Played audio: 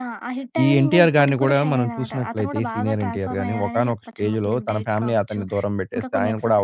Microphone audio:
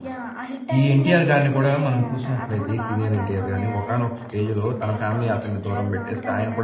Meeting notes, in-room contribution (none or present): present